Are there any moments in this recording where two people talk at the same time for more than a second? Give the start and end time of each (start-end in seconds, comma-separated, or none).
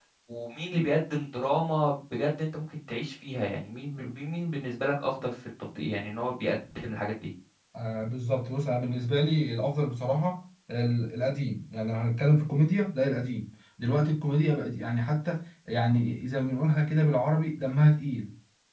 none